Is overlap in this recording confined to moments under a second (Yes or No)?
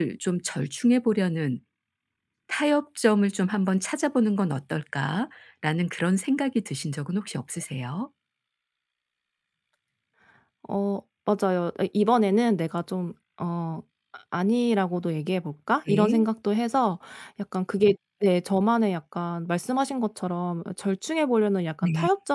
Yes